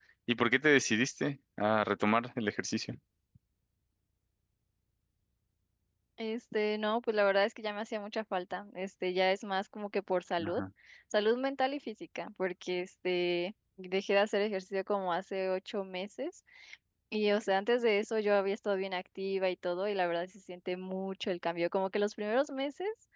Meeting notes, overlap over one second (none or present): none